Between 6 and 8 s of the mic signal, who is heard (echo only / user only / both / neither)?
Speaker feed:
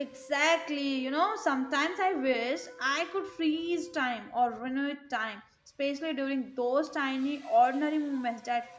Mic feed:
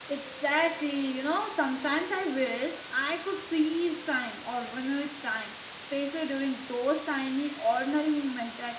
echo only